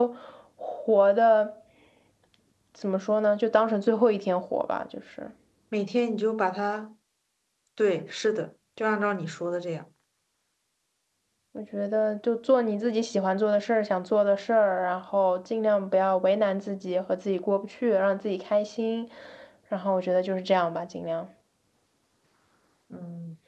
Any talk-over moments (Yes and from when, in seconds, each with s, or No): No